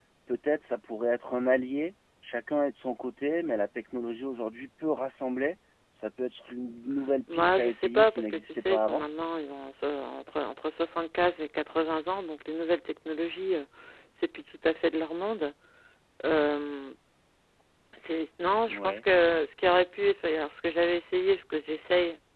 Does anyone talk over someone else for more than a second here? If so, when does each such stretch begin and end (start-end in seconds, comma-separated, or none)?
7.3-9.0